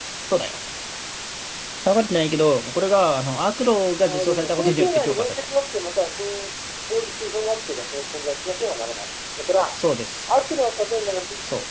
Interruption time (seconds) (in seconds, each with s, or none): 4.0 s